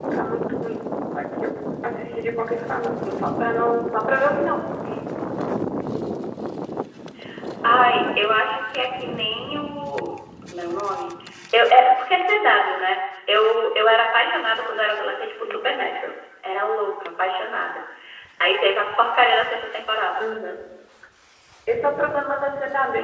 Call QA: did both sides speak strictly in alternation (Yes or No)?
Yes